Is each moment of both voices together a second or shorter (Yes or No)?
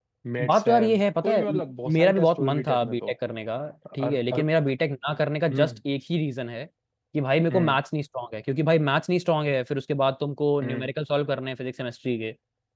No